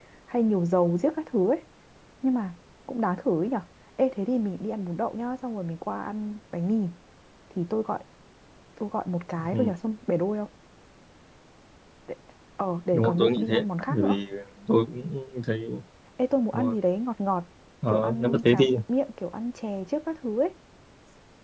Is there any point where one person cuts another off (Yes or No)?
Yes